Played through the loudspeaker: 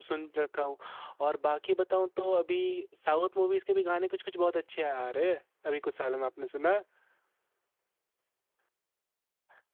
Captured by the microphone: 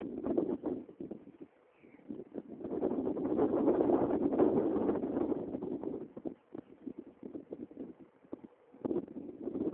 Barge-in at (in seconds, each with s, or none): none